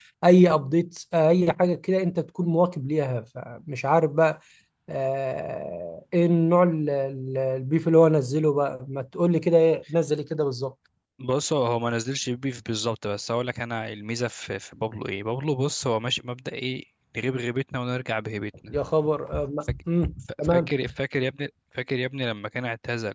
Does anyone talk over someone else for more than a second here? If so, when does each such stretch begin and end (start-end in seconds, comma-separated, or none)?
none